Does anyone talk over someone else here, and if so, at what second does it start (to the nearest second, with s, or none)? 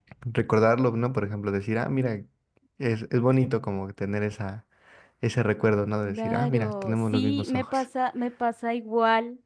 6 s